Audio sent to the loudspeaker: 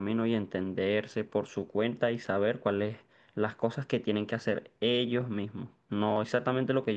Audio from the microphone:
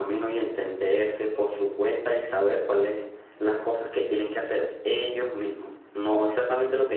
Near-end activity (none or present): none